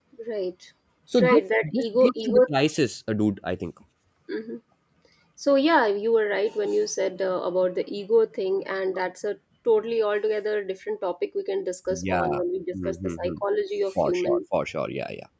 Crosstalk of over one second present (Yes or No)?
Yes